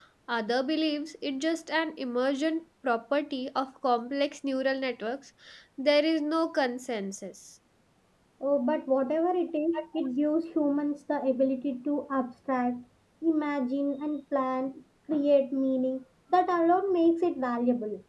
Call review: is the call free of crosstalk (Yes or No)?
Yes